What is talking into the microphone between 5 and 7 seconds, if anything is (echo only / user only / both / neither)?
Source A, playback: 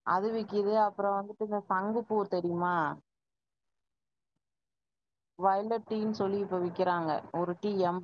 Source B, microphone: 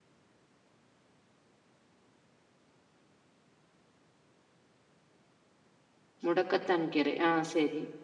user only